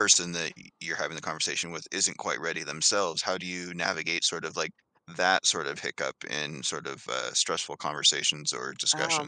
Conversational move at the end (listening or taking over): taking over